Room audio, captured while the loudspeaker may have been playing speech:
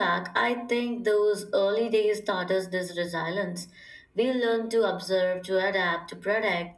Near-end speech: none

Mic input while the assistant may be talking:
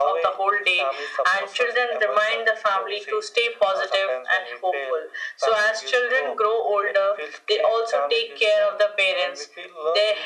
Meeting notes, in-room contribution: none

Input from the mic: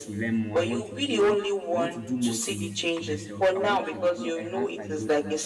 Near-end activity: present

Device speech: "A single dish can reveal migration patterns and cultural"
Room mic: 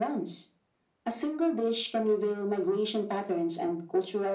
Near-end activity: none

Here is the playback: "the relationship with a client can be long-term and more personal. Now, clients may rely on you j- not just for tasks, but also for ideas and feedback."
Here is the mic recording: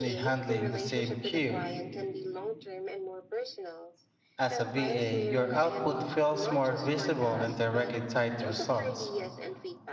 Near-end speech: present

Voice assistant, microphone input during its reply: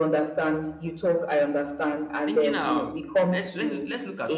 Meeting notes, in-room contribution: present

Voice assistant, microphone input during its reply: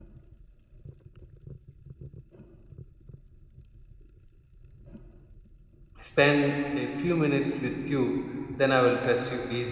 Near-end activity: present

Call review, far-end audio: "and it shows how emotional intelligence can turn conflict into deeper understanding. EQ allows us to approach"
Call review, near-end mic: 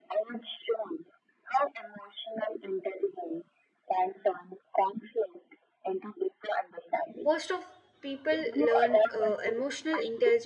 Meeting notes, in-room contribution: present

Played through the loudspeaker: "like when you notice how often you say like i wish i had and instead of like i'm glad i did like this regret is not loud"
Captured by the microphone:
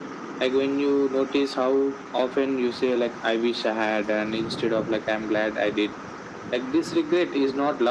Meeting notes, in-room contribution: none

